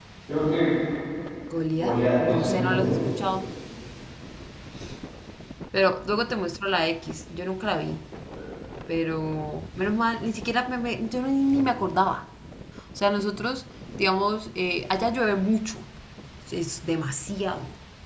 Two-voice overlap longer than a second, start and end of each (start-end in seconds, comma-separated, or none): 1.7-3.0